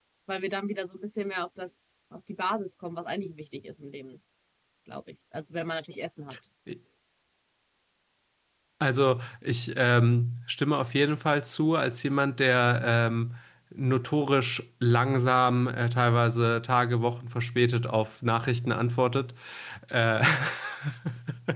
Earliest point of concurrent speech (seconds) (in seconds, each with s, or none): none